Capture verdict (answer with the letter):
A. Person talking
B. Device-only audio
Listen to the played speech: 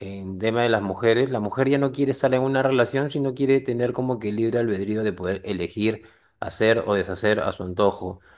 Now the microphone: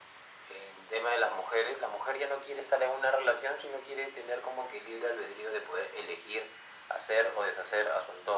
B